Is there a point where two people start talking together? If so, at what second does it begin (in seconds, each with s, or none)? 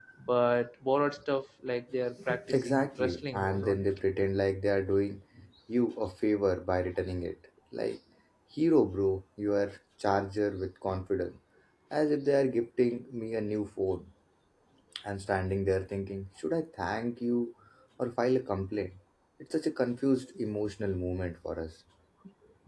2.3 s